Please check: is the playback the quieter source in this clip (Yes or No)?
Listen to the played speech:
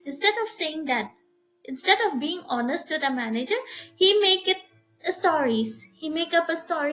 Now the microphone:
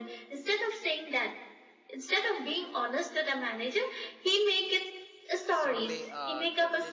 No